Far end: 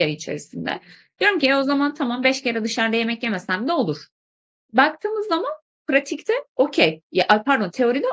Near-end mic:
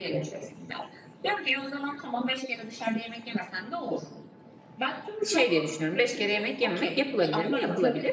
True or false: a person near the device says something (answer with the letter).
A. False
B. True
B